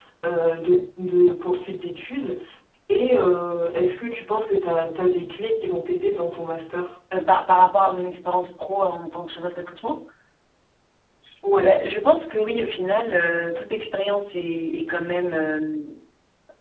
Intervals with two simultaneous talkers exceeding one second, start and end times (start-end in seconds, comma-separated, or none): none